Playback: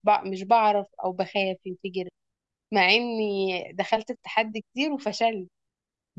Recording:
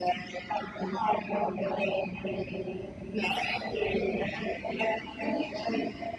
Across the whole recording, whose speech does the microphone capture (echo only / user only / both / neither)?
echo only